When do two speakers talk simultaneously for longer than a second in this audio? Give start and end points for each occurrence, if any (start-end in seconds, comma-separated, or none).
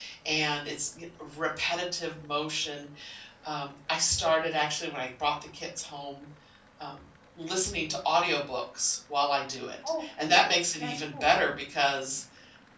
10.0-11.4